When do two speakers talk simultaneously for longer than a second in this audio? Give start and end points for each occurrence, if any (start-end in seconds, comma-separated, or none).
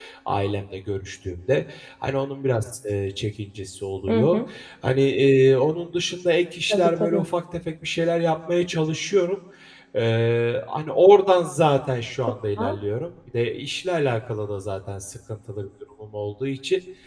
none